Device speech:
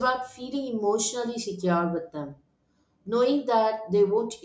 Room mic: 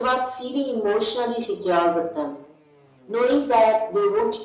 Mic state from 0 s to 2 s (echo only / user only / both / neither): echo only